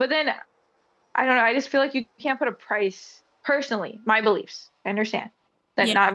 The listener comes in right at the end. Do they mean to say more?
No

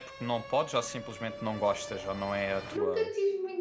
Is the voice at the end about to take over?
Yes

